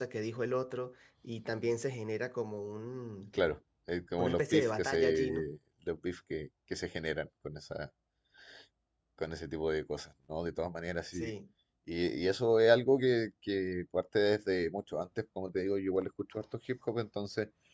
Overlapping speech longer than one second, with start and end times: 4.2-5.5

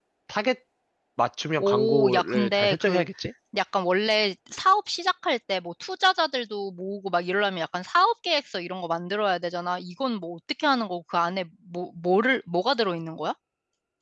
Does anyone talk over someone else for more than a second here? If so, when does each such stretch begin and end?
1.6-3.0

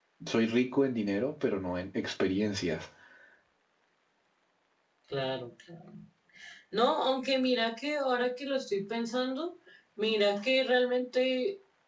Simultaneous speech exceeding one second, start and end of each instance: none

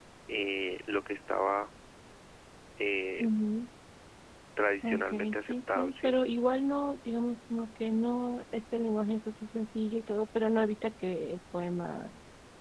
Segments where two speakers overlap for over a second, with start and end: 4.8-6.1

